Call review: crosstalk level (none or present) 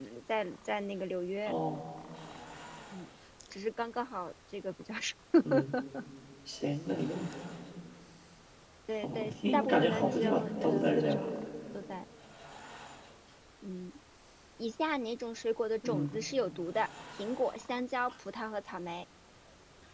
present